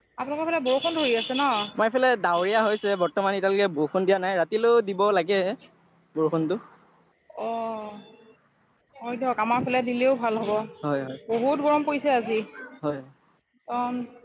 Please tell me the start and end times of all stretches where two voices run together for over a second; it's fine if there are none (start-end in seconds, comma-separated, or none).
none